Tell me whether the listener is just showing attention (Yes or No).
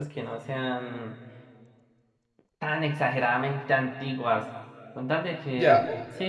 Yes